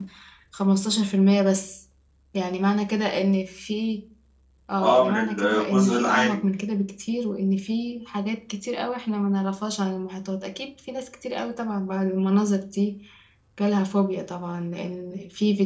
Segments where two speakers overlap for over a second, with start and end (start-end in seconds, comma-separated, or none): 4.8-6.3